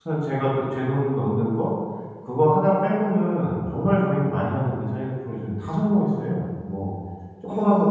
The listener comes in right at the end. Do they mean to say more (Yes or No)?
No